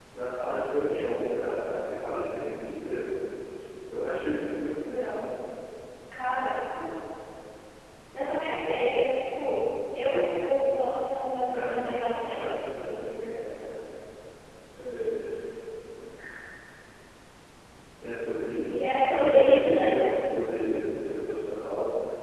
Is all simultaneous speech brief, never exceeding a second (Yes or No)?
No